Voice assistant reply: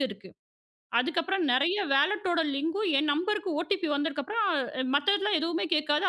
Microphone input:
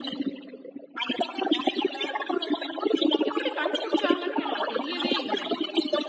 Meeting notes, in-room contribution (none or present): present